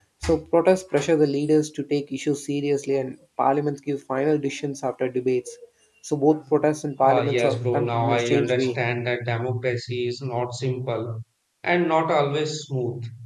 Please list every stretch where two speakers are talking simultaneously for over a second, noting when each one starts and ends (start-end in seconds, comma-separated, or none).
7.0-8.8